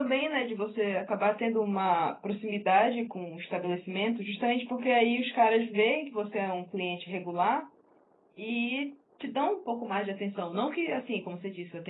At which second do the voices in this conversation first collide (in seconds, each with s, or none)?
none